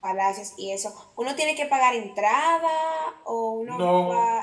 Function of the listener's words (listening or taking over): taking over